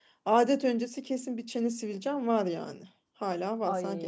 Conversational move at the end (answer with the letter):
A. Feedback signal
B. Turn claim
A